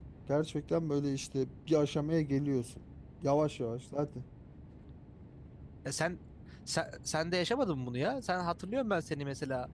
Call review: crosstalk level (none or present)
none